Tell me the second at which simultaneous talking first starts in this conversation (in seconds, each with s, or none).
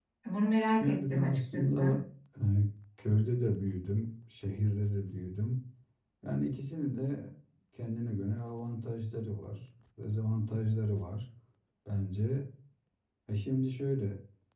0.8 s